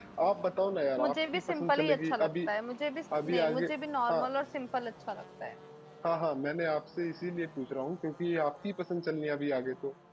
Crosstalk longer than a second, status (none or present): present